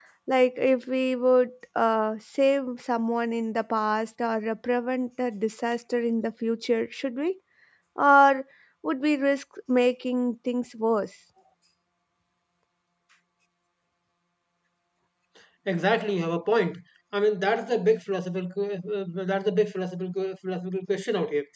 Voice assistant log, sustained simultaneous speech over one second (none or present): none